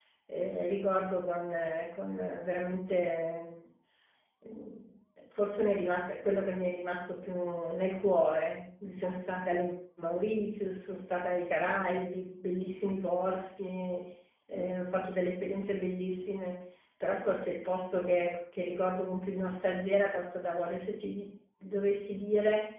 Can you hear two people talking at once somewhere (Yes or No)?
No